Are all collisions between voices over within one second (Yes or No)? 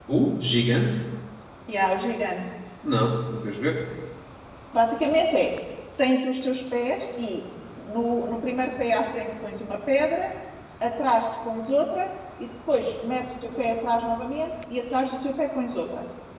Yes